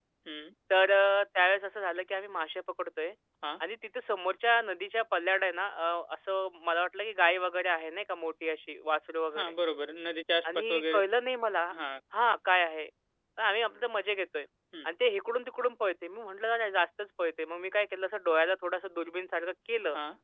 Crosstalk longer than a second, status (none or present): none